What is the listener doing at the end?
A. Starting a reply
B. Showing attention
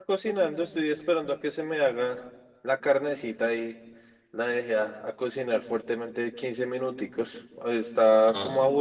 B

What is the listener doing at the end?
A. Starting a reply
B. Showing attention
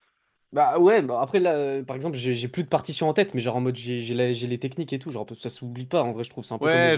A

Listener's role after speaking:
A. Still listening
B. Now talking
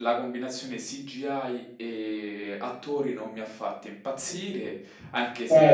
A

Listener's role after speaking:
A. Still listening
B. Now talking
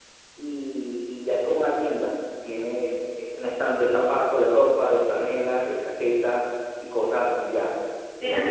B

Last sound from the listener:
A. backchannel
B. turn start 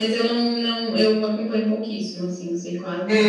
B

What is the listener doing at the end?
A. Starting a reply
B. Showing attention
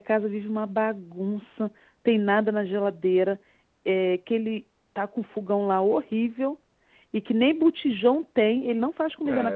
A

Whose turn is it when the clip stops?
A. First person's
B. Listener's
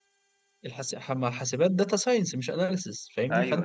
A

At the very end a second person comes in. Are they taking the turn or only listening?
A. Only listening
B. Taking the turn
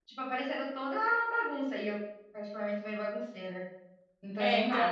B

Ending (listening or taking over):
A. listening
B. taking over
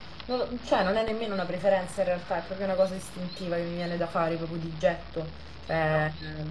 A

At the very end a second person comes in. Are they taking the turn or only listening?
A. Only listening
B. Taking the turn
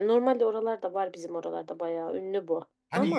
B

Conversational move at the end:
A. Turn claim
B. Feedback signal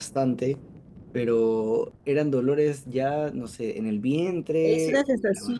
A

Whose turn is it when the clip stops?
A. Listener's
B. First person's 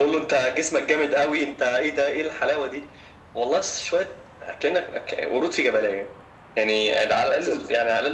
B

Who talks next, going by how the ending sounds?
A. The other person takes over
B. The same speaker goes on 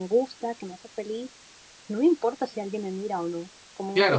A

